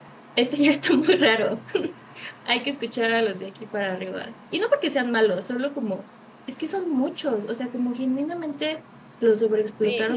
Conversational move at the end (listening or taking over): listening